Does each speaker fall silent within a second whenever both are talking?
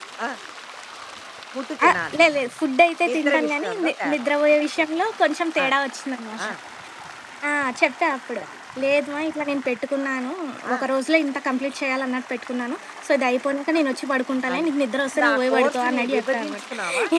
No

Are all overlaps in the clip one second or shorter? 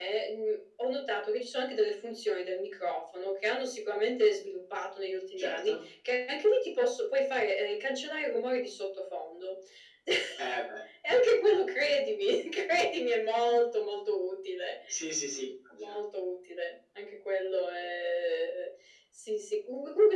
Yes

